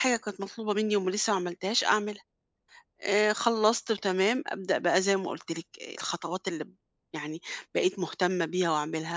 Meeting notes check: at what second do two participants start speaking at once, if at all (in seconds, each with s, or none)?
none